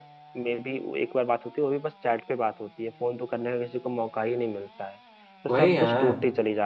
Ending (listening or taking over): listening